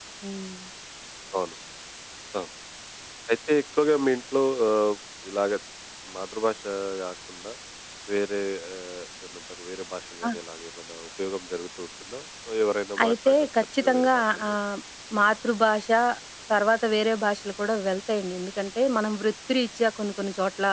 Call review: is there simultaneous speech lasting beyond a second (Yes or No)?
Yes